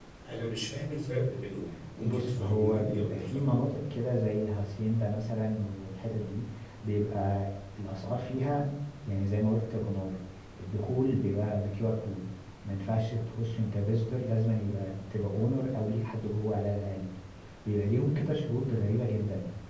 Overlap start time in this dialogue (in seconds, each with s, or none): 2.0 s